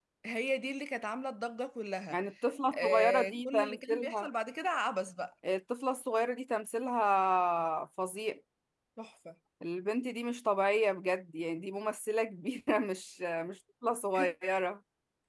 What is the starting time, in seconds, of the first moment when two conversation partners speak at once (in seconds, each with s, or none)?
2.7 s